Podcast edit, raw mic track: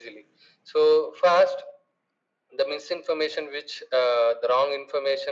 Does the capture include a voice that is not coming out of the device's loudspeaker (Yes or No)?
No